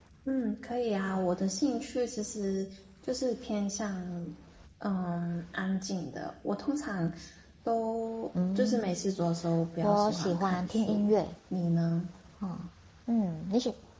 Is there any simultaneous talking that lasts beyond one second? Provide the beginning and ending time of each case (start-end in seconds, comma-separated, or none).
9.8-11.1